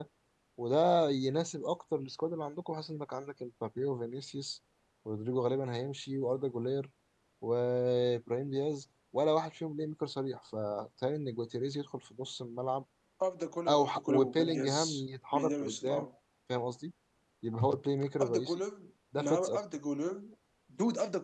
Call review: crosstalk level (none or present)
present